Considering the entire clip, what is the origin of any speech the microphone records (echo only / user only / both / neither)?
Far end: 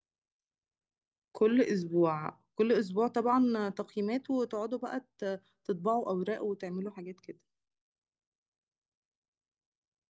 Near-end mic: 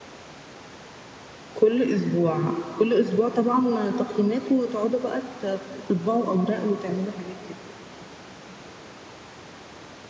echo only